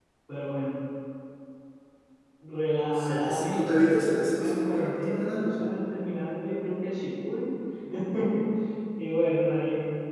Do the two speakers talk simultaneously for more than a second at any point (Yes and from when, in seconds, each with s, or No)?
Yes, from 2.9 s